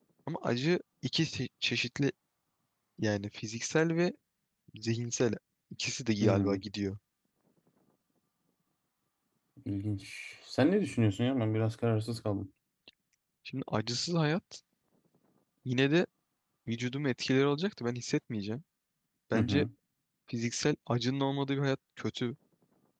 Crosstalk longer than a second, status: none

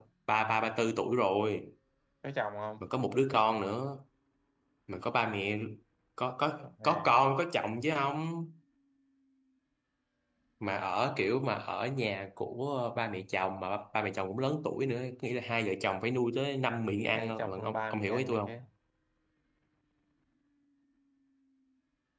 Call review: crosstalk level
present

